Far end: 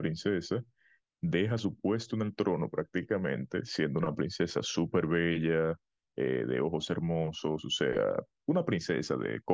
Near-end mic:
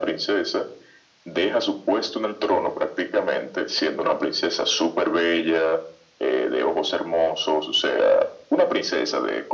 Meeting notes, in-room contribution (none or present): none